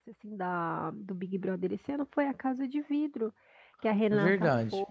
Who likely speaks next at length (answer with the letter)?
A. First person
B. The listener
A